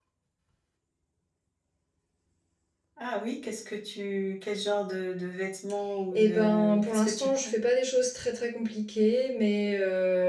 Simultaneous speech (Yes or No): Yes